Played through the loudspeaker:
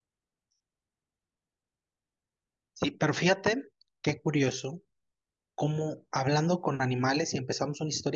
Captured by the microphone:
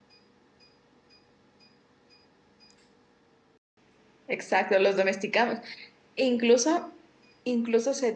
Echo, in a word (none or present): none